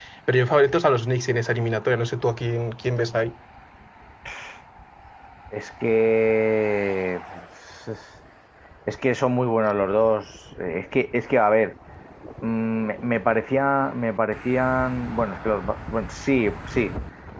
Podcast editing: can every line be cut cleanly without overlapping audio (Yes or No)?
Yes